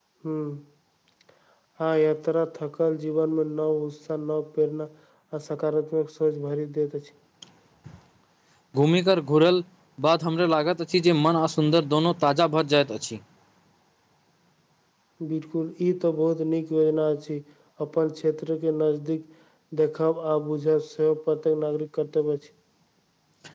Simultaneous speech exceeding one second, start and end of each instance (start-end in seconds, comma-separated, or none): none